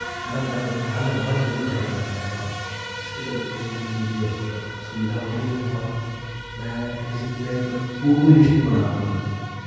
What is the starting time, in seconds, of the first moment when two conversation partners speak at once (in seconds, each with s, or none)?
none